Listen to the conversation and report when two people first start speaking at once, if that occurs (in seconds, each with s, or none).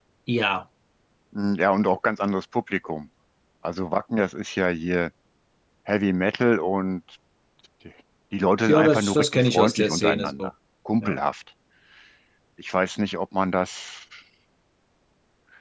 8.7 s